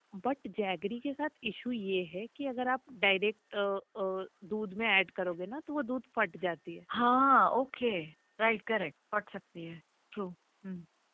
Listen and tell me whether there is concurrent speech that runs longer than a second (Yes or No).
No